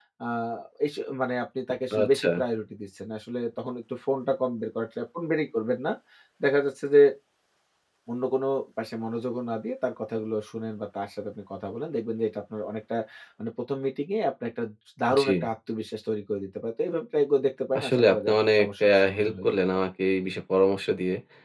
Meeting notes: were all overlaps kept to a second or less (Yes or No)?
No